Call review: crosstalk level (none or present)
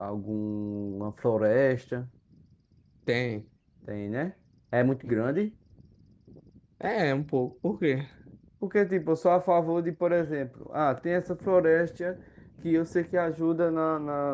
none